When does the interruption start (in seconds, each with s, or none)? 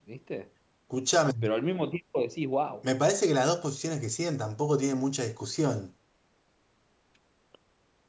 none